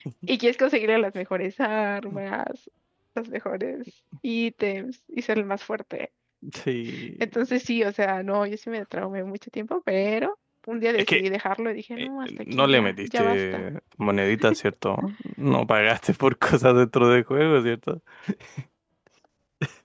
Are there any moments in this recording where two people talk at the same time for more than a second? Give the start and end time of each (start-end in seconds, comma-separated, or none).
12.0-13.7